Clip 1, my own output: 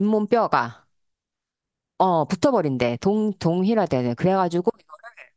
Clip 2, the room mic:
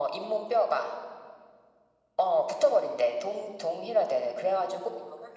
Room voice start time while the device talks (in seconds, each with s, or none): none